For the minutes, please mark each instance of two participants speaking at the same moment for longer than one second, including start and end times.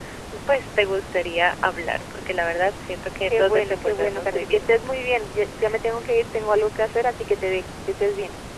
3.3-5.0

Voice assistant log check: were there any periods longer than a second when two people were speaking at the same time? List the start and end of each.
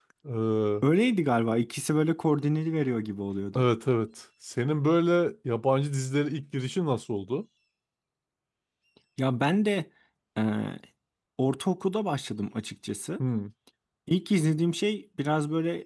none

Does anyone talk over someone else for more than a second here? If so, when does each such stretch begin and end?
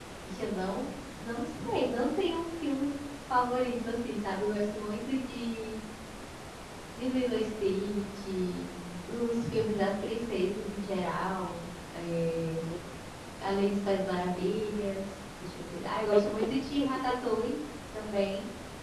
16.1-17.4

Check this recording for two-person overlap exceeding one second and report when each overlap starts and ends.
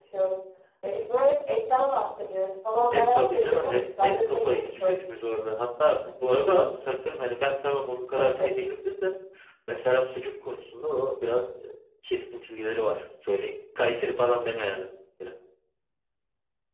2.9-5.0

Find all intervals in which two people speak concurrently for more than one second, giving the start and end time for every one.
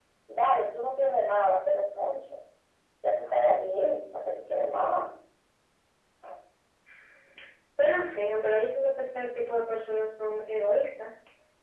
none

